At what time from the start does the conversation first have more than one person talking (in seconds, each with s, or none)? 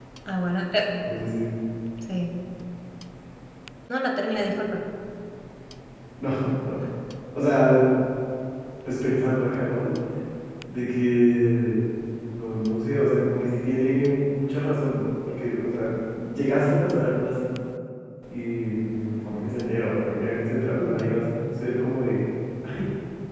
none